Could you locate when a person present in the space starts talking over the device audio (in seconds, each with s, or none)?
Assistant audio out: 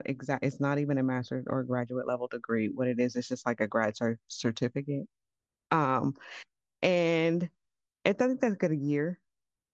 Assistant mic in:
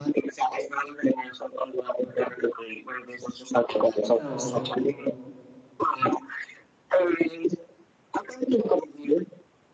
4.0 s